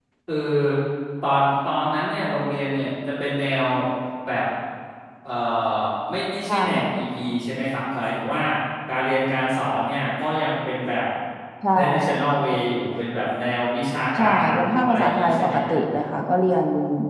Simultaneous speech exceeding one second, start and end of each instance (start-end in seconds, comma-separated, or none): 14.2-15.7